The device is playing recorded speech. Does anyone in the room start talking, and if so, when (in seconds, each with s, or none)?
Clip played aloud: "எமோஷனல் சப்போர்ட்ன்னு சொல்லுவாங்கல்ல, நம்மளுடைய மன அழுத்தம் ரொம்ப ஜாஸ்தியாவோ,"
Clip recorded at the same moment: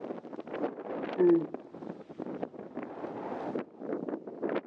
1.2 s